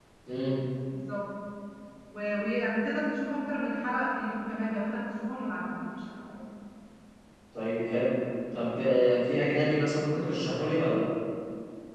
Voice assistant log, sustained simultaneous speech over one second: none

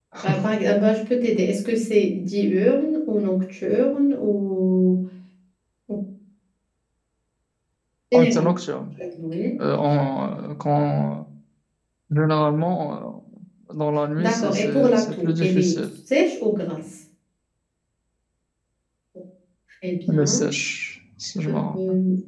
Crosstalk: present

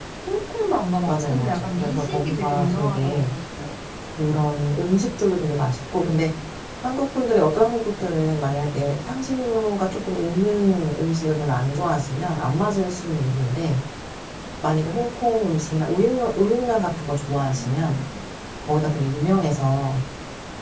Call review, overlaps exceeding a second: present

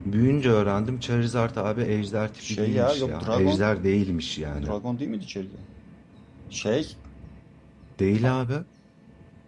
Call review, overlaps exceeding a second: present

